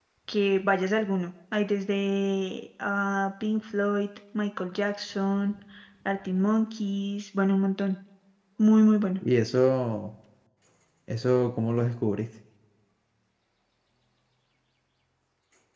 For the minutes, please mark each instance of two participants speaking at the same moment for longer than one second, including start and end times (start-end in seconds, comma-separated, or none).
none